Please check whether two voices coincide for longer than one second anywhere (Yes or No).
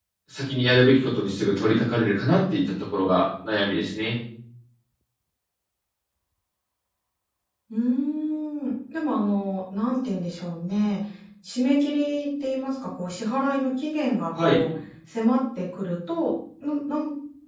No